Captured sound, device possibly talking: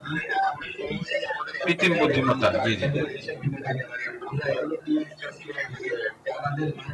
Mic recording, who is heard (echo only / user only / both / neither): both